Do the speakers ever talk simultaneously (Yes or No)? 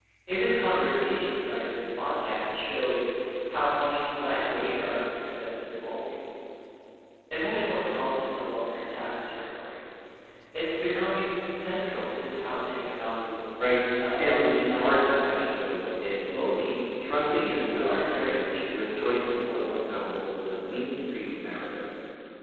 Yes